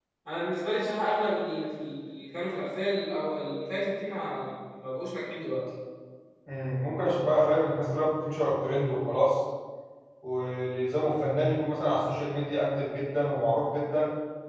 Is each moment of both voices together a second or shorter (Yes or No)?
Yes